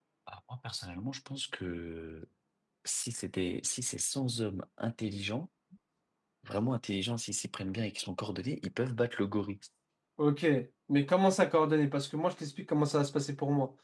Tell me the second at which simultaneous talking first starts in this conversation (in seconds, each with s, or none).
none